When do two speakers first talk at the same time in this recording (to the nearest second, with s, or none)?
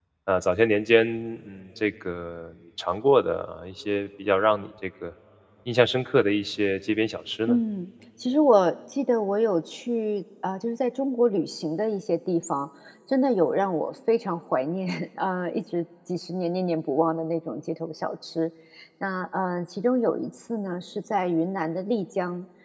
none